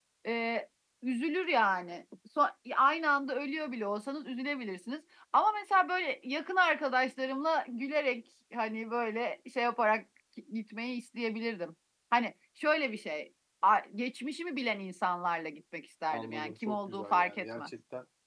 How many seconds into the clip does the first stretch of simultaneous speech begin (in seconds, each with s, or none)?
16.1 s